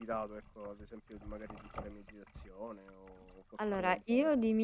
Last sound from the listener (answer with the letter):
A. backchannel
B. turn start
B